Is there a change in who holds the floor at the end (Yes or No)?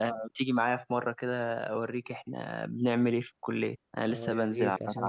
Yes